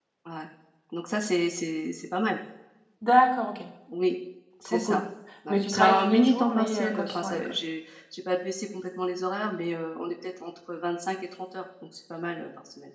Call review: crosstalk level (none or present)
present